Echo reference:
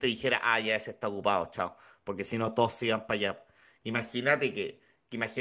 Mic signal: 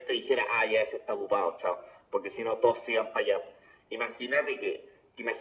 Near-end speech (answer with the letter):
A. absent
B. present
A